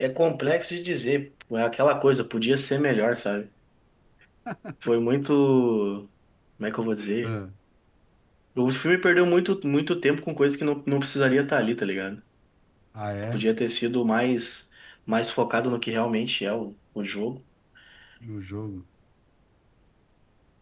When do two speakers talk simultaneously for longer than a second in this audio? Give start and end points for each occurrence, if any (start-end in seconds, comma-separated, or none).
none